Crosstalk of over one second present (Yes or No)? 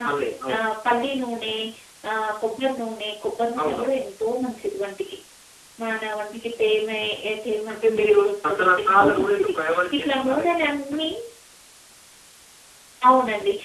Yes